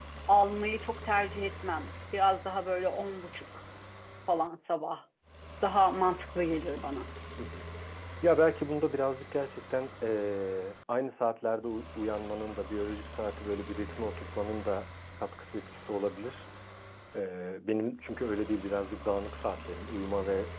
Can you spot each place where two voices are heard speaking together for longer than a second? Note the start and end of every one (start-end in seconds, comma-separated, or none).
none